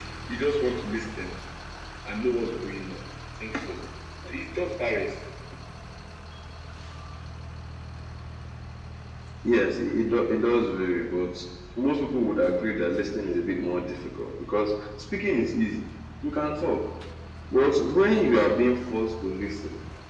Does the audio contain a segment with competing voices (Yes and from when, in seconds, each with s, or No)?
No